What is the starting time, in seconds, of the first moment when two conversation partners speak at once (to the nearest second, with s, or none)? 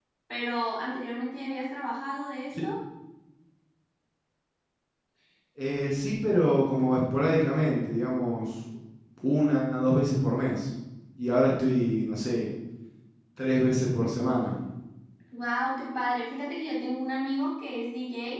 none